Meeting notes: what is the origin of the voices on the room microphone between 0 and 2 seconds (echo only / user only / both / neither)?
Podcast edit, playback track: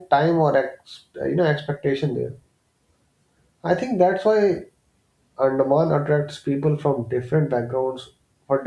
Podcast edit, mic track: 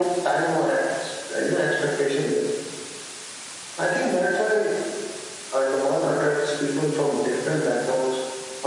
echo only